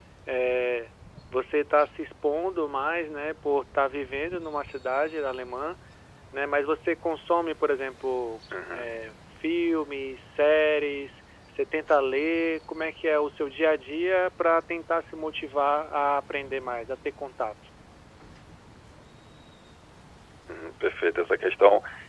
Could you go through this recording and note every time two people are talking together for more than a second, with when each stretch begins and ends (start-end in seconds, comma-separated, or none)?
none